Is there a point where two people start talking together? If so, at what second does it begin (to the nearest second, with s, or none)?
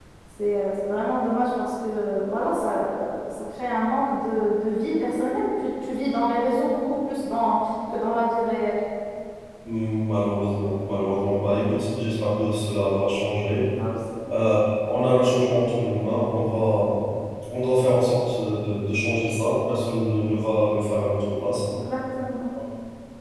none